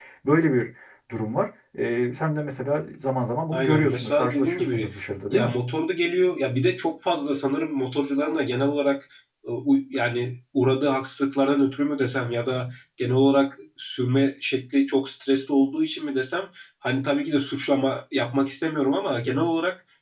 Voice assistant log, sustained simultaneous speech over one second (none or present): present